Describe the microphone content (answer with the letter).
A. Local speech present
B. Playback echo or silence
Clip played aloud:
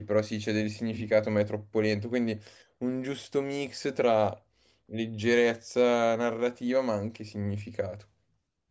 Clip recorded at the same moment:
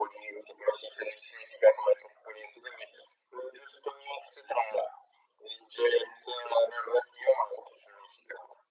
B